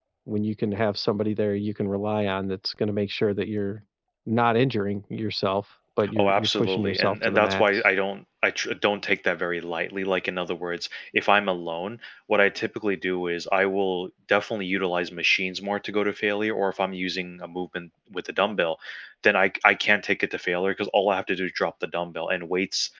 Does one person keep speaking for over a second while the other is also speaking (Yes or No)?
Yes